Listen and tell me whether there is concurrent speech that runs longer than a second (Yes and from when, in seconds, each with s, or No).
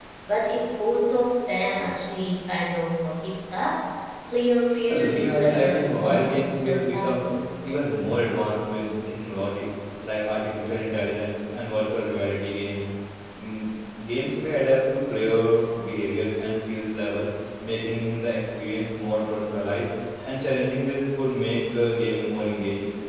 Yes, from 4.9 s